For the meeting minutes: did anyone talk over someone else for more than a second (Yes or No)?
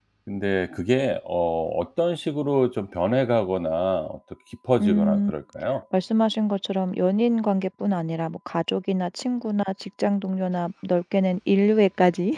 No